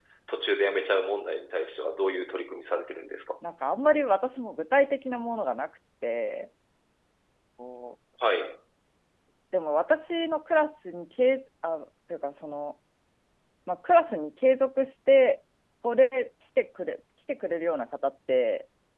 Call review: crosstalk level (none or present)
none